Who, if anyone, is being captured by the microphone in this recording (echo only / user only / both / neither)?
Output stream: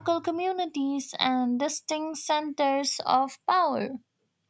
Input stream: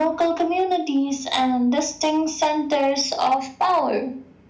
echo only